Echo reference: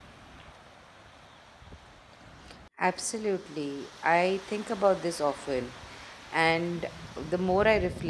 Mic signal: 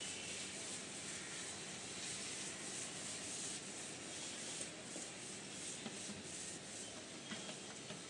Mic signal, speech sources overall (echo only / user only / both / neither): neither